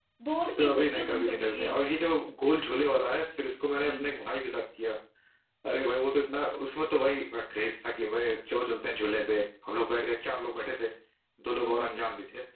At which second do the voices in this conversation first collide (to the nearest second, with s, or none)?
1 s